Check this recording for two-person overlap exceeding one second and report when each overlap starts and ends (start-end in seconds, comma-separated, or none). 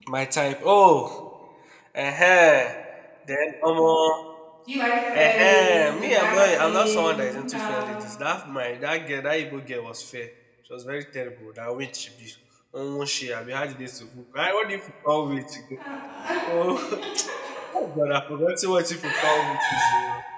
5.2-7.8